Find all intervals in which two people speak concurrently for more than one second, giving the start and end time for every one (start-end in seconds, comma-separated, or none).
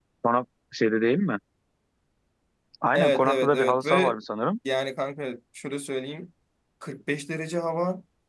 2.9-4.2